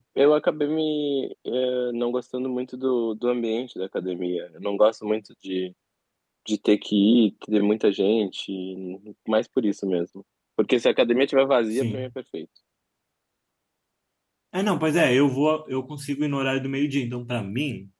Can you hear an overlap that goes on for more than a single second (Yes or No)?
No